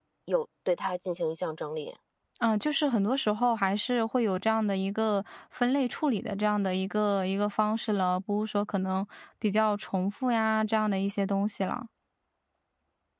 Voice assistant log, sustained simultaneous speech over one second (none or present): none